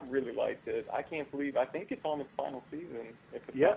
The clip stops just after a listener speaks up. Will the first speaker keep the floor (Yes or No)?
No